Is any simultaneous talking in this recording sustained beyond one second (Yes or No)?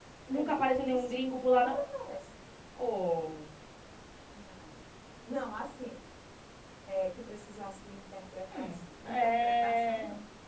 Yes